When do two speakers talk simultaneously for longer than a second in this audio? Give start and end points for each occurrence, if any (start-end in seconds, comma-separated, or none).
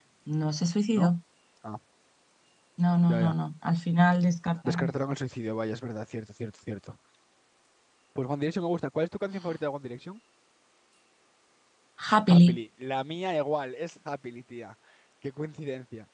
none